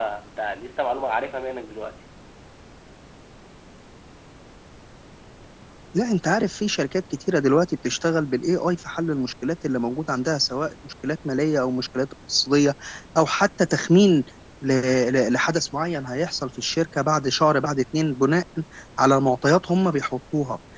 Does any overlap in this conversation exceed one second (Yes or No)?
No